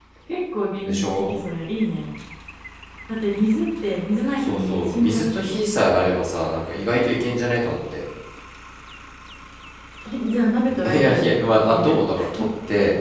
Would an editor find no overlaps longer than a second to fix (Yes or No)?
No